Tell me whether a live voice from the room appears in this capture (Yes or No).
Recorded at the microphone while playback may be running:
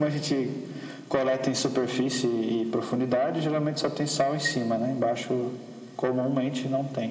No